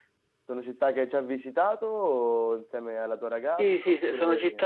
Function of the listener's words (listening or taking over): taking over